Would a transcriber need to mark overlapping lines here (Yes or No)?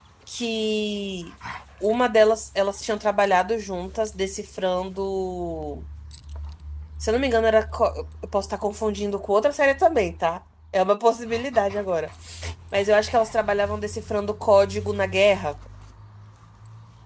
No